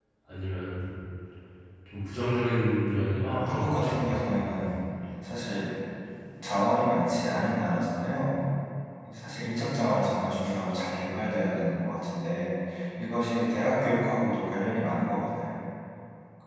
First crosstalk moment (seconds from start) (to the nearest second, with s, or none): 3 s